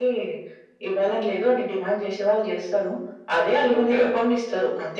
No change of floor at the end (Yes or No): Yes